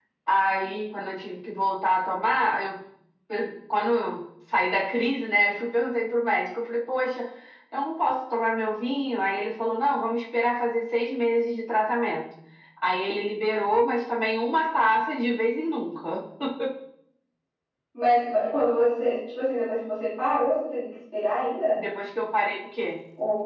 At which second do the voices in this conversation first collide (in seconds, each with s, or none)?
none